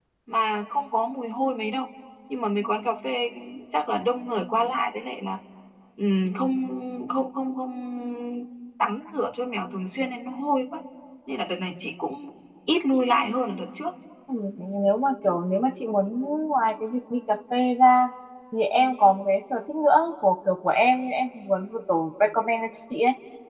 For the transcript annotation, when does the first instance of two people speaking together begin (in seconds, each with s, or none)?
none